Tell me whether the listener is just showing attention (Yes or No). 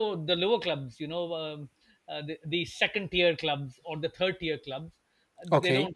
Yes